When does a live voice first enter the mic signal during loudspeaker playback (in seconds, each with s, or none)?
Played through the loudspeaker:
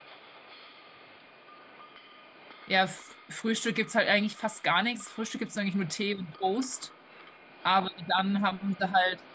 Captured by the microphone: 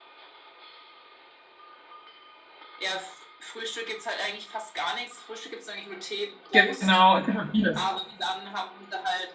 6.5 s